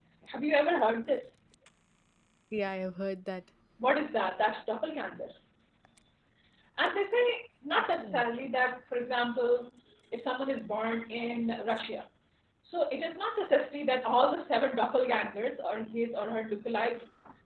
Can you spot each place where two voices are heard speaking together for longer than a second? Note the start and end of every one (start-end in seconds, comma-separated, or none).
none